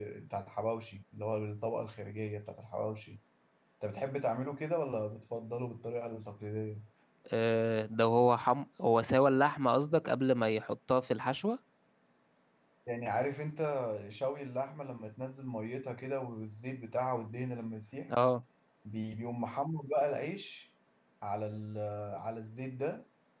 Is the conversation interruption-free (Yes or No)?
Yes